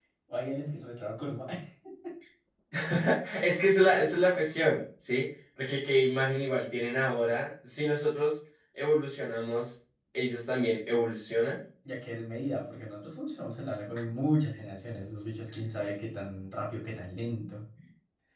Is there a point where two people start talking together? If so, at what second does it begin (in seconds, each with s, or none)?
none